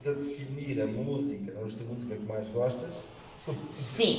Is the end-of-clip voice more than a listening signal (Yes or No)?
No